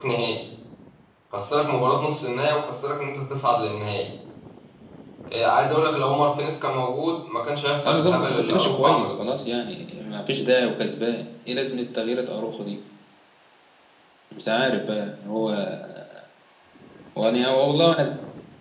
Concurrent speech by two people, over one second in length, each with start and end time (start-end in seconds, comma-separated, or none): 7.8-9.3